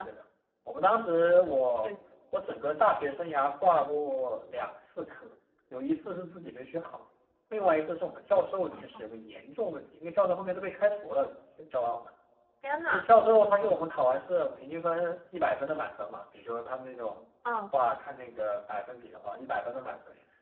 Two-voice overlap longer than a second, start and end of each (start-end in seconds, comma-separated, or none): none